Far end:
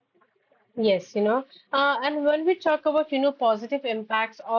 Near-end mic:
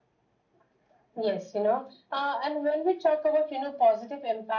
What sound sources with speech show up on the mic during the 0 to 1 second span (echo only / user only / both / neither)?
neither